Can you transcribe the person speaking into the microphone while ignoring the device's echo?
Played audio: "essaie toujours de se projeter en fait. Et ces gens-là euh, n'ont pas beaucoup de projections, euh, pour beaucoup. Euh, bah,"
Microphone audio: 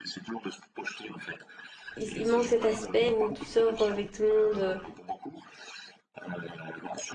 il, il manque cet aspect où tu sors avec tout le monde euh,

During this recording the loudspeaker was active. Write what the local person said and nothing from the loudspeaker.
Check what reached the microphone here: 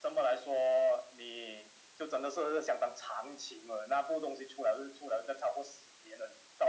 none

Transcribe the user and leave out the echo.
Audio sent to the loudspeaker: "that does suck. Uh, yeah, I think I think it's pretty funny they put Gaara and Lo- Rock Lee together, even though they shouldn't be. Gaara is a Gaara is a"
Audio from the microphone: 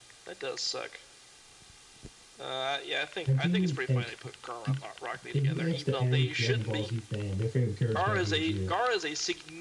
I do like, like like, you ask the average Dragon Ball Z fan, their favorite character is going to be Vegeta.

